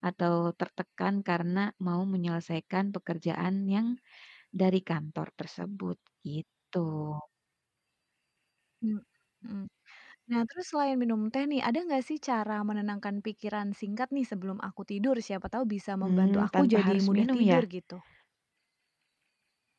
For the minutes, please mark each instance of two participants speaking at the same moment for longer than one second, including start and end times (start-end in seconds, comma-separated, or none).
16.0-17.6